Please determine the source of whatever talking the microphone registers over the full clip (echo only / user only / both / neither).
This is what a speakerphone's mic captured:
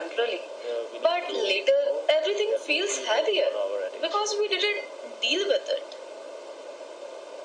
echo only